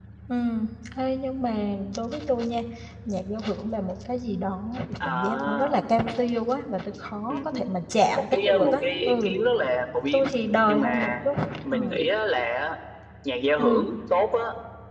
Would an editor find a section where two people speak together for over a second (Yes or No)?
Yes